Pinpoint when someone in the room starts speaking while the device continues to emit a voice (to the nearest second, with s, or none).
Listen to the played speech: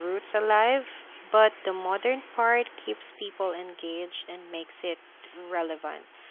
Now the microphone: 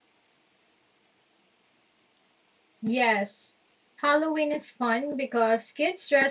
3 s